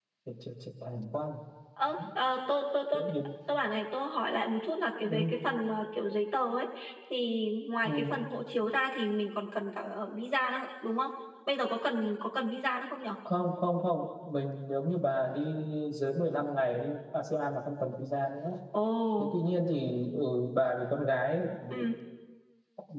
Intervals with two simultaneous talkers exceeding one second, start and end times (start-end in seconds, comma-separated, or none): none